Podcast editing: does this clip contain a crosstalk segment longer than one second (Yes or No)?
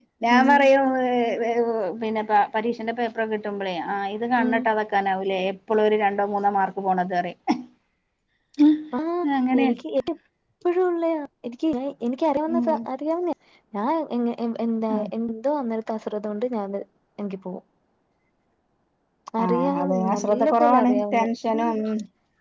Yes